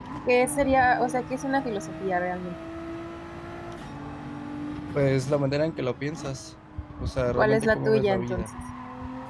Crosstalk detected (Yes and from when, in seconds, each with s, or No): Yes, from 7.3 s